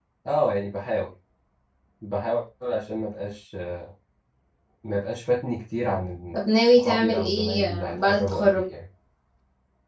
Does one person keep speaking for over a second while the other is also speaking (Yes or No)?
Yes